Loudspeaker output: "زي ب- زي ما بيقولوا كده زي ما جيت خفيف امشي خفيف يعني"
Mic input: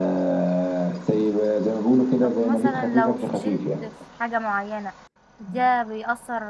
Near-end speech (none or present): present